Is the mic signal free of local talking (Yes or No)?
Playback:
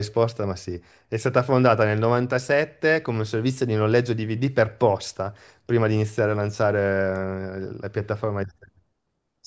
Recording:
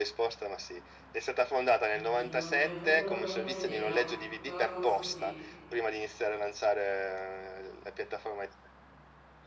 No